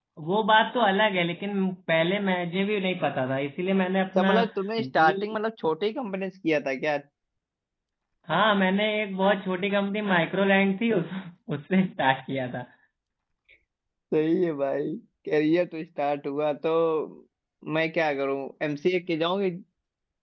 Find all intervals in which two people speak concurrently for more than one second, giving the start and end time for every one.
none

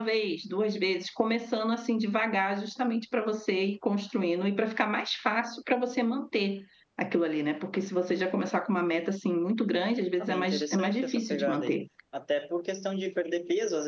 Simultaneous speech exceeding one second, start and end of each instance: 10.2-11.8

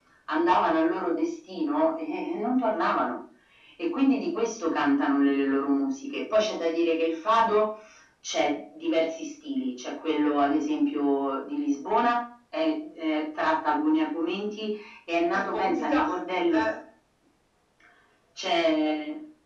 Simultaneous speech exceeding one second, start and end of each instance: 15.3-16.7

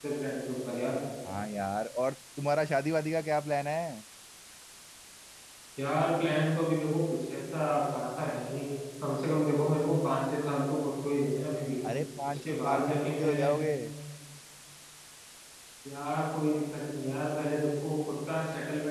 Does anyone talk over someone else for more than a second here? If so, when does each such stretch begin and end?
12.3-13.6

